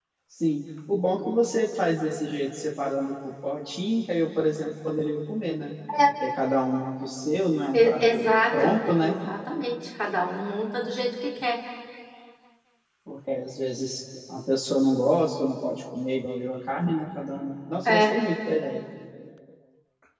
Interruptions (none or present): present